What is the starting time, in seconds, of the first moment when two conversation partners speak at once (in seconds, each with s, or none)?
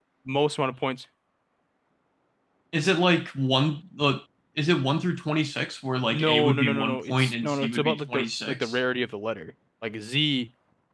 6.1 s